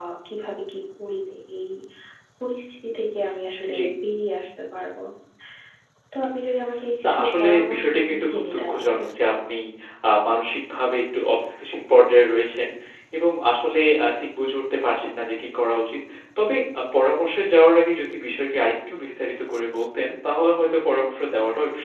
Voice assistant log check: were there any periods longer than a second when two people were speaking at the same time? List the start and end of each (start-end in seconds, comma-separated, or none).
7.0-9.0